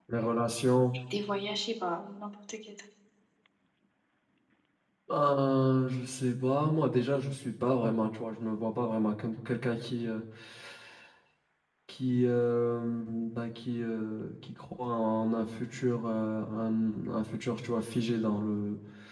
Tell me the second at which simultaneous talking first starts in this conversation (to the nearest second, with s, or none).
none